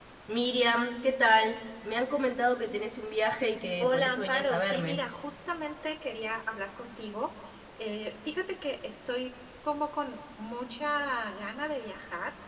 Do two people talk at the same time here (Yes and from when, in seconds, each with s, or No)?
Yes, from 3.8 s